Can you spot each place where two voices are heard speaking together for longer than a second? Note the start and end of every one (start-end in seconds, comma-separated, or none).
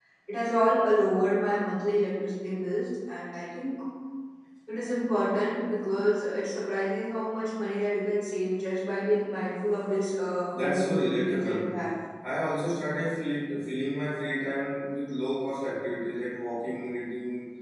10.5-11.8